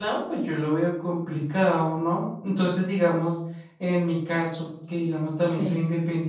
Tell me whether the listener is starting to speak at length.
No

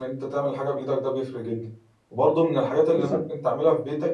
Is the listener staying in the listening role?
Yes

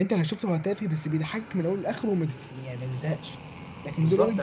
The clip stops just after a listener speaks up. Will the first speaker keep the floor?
No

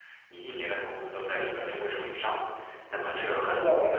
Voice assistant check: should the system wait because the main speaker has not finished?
Yes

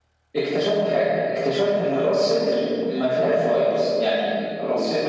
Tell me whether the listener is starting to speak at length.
Yes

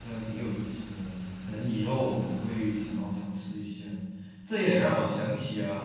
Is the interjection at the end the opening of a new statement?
No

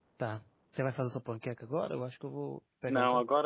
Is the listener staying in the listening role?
No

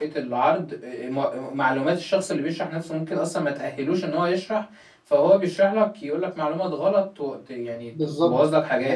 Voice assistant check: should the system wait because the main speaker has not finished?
No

